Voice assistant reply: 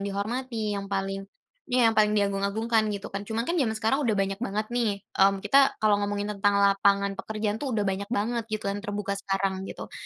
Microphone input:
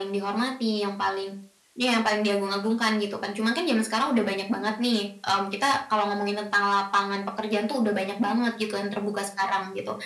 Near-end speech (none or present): none